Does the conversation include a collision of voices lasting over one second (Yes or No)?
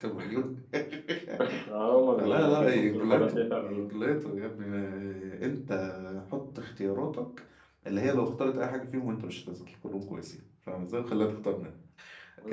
Yes